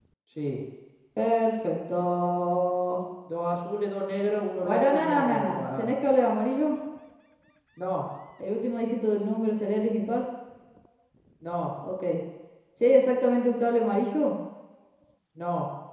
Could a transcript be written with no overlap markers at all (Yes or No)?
No